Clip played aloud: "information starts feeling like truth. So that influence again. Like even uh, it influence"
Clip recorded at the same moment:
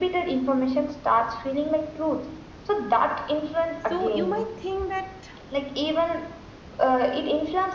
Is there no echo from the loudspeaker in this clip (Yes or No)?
No